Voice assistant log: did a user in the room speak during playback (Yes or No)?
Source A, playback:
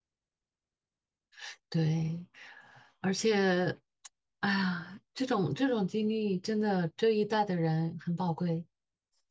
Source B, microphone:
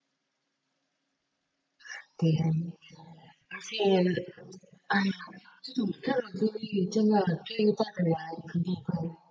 No